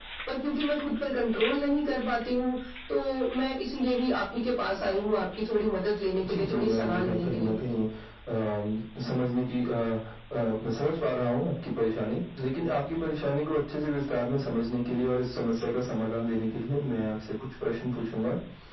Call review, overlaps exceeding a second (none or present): present